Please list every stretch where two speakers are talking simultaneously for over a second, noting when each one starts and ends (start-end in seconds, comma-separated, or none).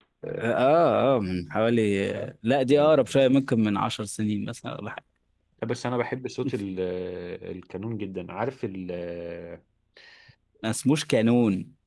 none